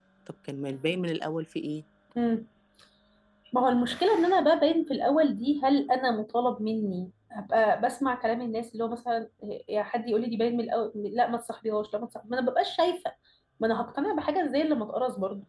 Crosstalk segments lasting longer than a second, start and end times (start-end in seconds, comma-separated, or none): none